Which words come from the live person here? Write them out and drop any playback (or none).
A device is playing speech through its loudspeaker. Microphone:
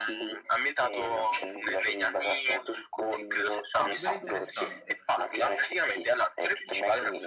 Ah, super interessante,